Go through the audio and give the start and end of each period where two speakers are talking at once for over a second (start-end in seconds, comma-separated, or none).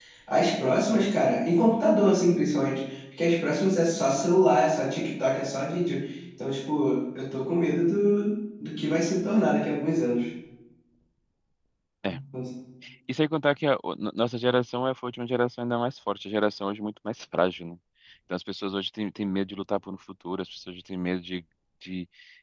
none